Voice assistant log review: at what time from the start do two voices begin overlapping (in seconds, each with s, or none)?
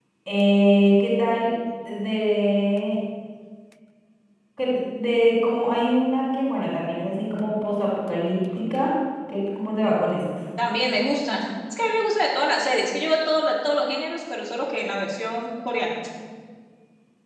none